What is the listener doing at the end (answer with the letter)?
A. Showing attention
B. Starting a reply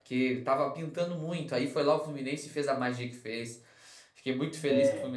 A